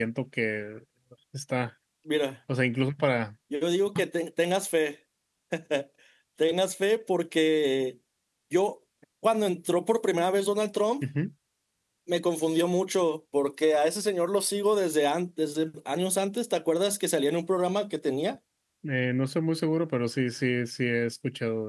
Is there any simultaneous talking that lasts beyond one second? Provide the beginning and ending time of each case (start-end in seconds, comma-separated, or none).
none